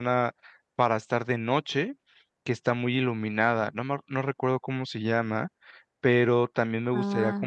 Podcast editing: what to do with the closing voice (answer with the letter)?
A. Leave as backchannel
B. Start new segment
A